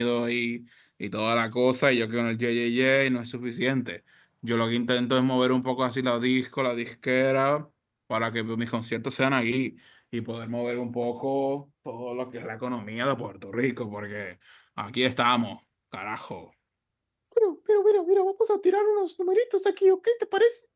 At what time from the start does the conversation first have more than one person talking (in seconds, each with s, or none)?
none